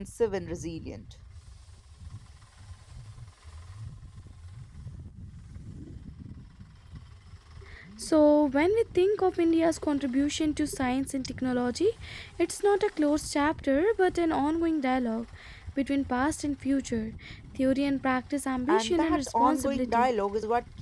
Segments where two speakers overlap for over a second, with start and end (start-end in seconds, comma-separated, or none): 18.7-20.1